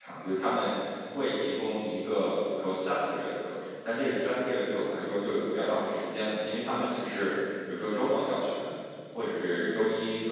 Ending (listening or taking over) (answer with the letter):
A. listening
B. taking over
A